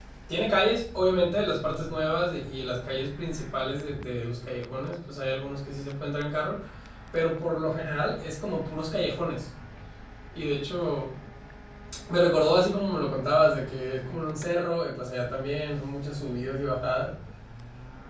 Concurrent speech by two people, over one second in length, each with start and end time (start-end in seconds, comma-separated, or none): none